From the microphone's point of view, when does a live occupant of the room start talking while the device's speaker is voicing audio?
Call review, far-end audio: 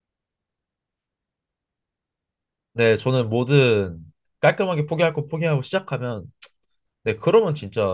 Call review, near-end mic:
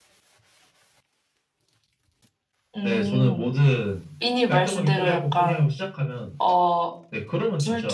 2.8 s

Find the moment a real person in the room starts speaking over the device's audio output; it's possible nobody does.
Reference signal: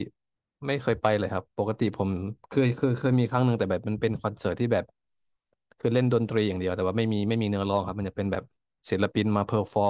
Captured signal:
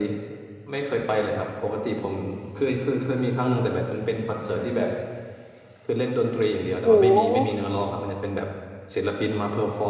6.8 s

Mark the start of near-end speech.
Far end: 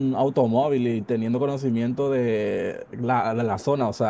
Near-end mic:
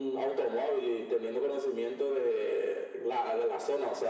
none

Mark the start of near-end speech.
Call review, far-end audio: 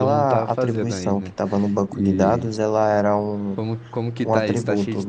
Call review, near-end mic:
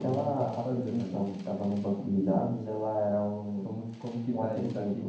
none

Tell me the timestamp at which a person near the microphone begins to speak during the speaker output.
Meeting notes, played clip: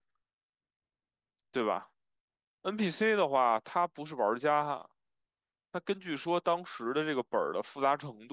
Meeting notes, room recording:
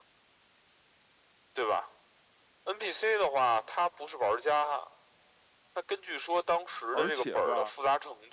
6.9 s

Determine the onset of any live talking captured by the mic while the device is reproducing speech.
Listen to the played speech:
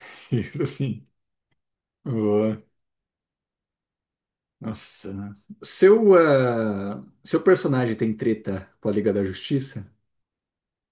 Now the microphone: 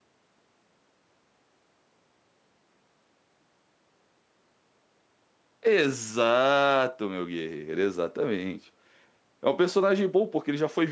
5.6 s

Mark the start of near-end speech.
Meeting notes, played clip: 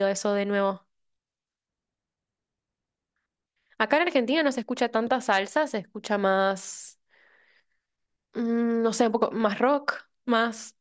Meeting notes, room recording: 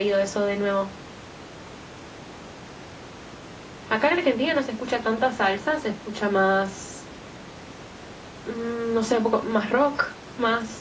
none

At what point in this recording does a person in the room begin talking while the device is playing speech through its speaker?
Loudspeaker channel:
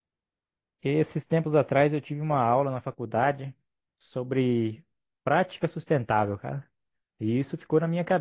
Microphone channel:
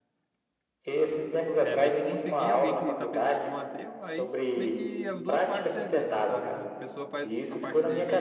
1.6 s

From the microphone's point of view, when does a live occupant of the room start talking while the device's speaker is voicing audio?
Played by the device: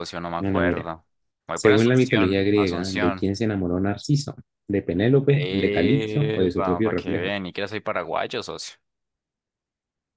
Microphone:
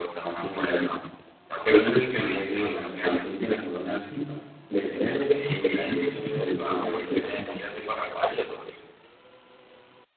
none

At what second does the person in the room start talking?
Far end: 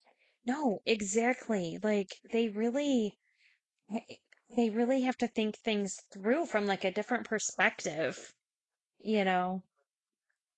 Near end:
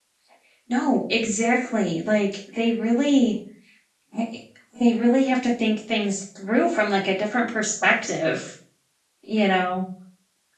none

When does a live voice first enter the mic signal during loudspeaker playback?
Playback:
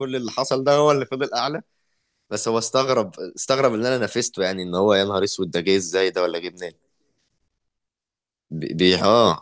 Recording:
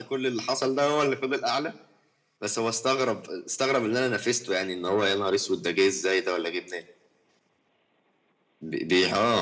none

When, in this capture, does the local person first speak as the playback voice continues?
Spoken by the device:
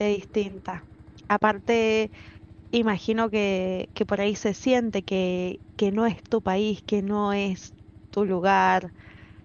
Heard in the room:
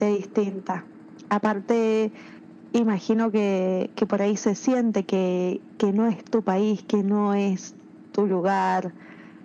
none

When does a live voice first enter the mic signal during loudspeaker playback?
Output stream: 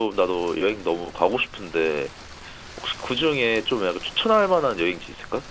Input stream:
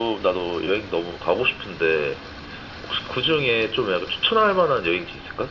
none

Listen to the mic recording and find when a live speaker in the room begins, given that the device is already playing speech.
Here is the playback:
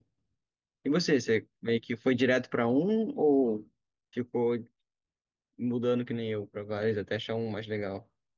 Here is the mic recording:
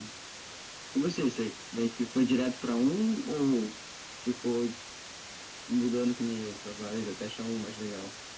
none

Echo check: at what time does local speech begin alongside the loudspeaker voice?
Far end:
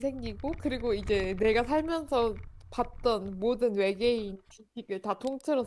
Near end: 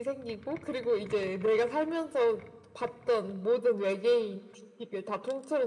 none

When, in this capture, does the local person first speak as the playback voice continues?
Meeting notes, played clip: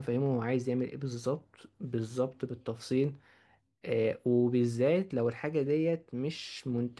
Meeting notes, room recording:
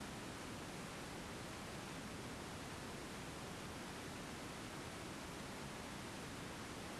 none

